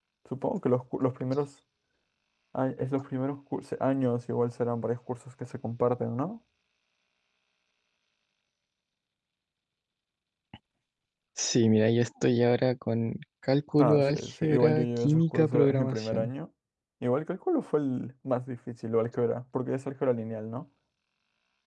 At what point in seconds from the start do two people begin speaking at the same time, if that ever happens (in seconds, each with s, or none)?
13.8 s